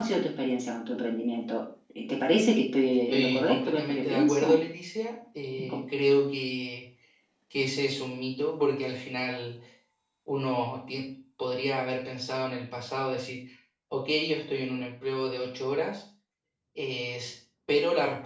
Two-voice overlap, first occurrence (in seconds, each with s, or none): 3.1 s